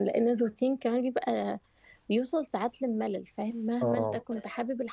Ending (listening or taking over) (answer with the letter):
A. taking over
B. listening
B